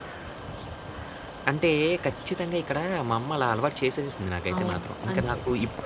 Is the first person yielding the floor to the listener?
Yes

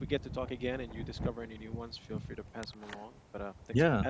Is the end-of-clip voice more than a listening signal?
Yes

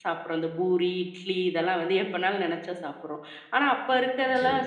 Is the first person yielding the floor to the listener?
No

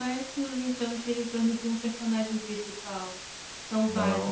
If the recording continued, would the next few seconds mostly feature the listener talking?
Yes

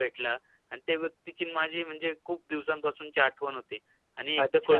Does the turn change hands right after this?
No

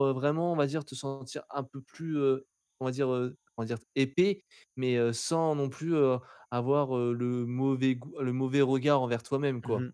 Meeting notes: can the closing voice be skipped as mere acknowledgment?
No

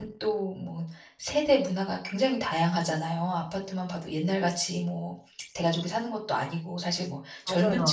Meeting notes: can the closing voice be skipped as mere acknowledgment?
Yes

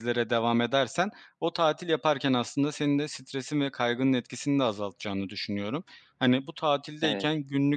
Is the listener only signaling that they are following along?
Yes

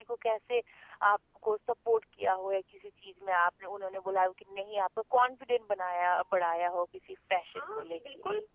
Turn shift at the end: Yes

